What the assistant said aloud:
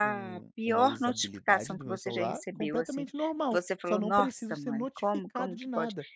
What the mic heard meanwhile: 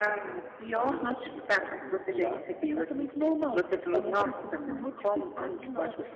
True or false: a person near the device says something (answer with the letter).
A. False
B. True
A